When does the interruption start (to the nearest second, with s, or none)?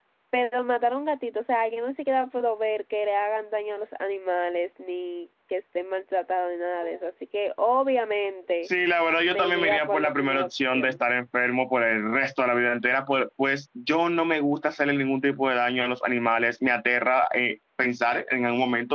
9 s